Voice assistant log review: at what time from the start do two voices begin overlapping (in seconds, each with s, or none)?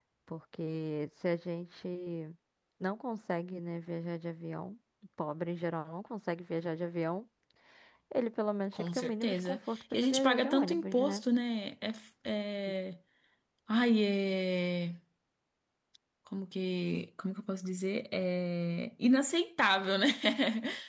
8.7 s